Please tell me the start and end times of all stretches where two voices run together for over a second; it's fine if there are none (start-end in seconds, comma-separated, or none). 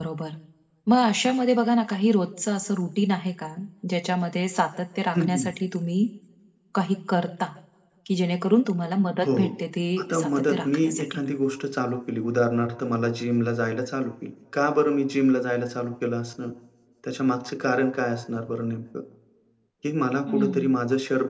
10.0-11.2